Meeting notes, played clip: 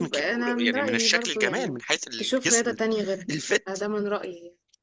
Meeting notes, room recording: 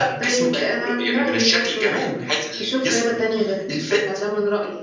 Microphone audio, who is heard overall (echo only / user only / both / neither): echo only